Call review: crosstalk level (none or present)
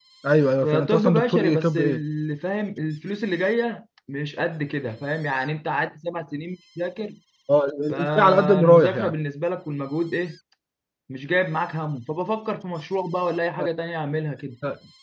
present